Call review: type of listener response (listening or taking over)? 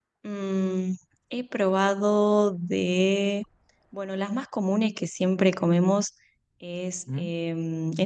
listening